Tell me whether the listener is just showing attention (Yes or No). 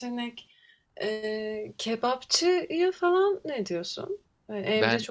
Yes